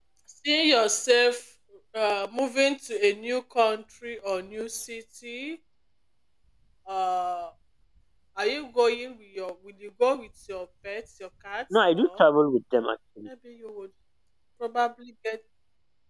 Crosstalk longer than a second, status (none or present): none